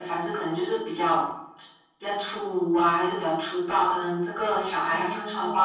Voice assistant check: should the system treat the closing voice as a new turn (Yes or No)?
No